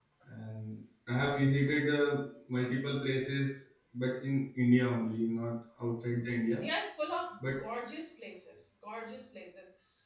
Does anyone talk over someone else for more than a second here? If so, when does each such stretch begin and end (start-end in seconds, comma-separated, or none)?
none